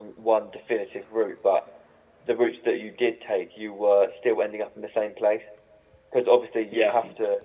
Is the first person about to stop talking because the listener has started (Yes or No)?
No